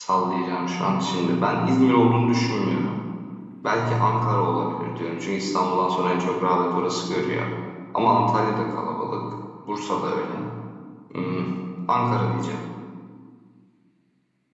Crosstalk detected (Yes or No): No